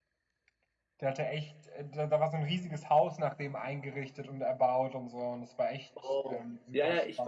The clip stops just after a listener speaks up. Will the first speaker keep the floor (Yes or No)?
No